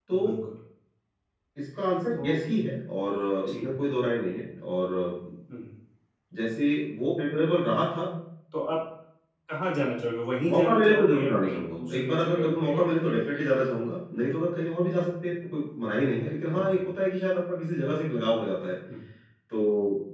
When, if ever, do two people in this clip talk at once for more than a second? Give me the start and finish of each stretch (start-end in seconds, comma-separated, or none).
10.5-12.8